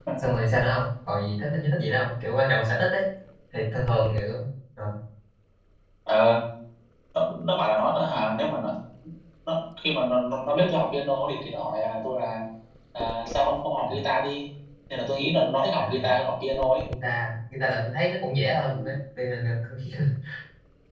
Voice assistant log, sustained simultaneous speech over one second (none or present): none